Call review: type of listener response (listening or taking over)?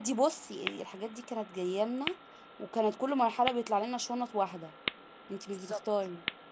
taking over